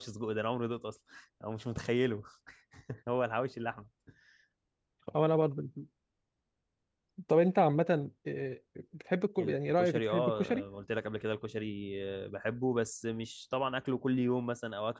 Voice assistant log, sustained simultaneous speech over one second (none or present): present